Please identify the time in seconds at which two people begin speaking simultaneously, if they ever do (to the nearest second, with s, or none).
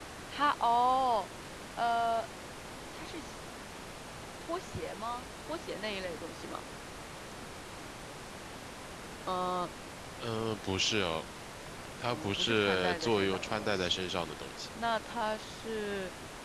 12 s